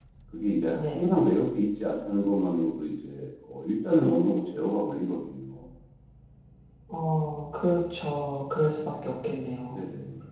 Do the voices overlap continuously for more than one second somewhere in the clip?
No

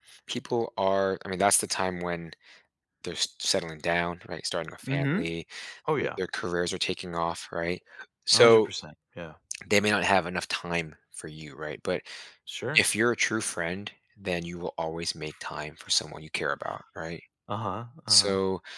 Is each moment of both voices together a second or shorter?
Yes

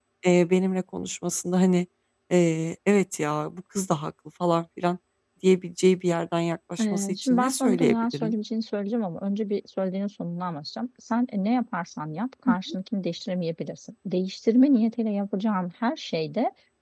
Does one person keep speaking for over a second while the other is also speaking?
Yes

